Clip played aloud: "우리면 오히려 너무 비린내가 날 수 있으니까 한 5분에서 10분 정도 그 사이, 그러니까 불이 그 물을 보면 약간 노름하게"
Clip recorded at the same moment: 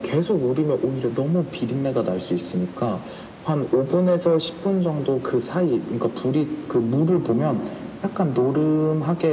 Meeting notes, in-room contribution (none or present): none